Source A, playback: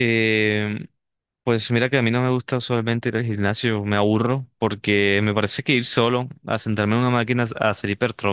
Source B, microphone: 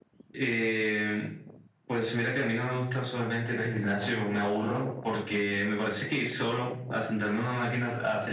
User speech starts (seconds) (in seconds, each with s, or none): none